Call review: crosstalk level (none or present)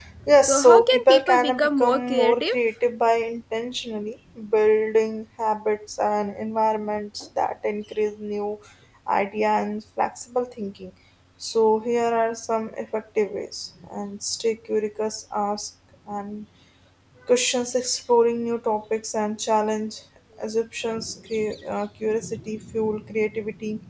present